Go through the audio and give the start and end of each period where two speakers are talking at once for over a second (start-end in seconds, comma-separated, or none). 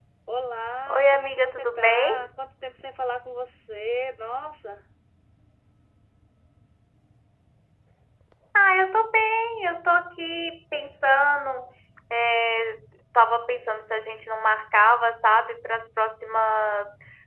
0.9-2.2